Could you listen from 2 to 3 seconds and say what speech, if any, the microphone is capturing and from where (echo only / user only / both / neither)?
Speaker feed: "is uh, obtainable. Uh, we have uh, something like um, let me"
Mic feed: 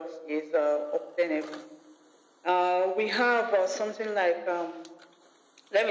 echo only